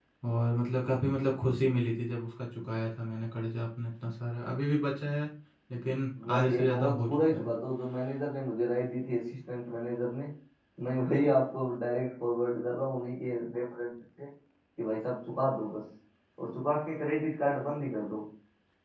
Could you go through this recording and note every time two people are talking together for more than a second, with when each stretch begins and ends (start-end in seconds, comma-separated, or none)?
6.3-7.5